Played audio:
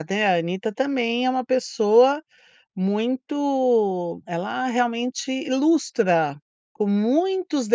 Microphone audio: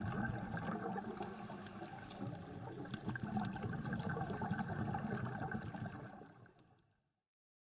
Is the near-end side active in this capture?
No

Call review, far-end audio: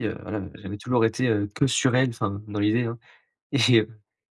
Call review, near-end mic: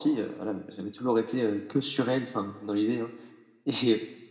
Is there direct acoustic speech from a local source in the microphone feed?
No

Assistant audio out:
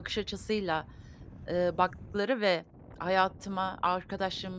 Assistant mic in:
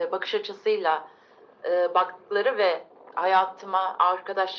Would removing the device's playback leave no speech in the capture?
Yes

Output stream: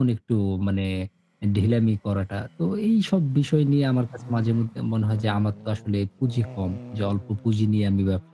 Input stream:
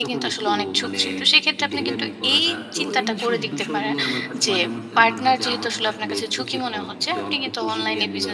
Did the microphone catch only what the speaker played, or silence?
No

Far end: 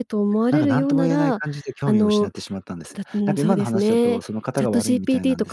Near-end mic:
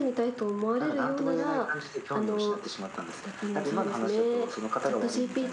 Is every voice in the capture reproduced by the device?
Yes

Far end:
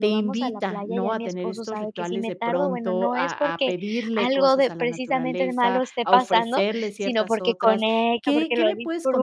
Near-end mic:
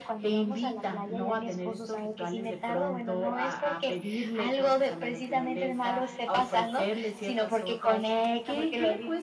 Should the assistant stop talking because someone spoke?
No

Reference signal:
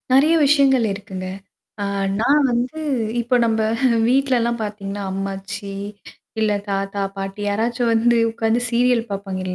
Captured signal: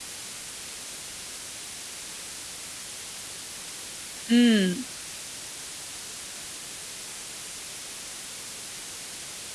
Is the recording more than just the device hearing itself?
Yes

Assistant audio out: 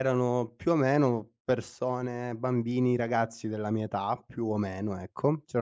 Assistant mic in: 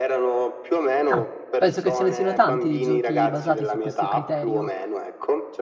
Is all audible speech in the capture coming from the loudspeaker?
No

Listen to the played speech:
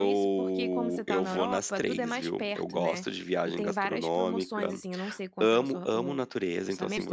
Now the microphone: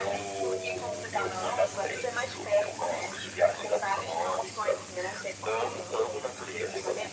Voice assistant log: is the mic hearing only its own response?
Yes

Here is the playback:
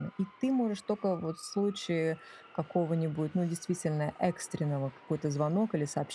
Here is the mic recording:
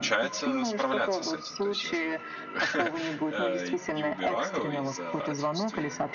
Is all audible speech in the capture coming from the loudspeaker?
No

